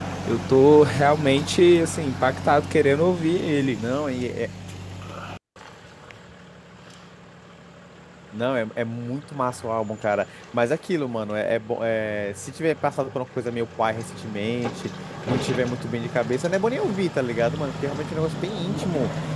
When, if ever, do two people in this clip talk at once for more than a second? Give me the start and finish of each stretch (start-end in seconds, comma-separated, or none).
none